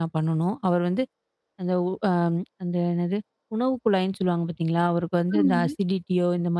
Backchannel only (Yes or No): Yes